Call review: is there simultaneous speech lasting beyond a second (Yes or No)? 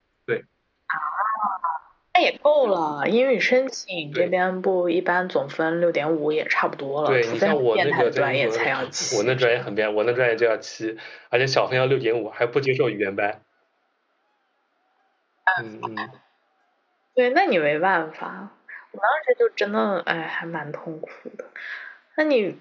Yes